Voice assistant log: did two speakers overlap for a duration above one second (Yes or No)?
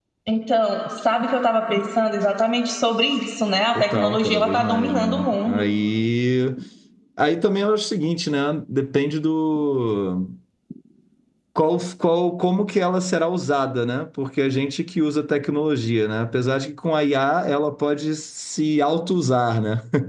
Yes